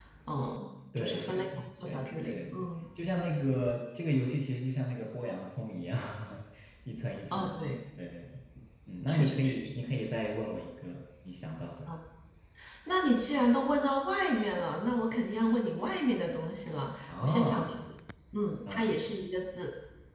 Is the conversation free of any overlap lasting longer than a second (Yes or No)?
No